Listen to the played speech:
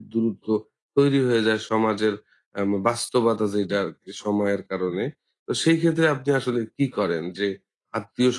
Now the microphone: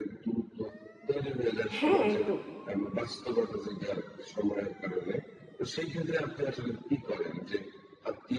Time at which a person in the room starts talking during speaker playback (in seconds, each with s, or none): 1.8 s